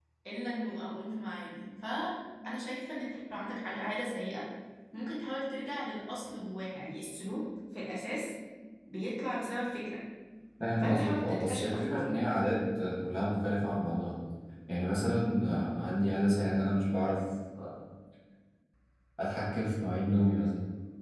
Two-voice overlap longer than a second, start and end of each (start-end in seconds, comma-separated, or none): 10.8-12.1